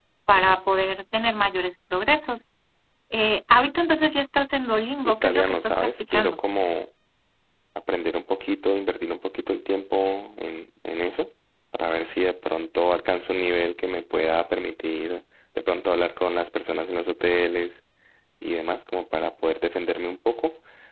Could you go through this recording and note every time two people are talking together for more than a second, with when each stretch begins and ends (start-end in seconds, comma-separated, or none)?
5.0-6.4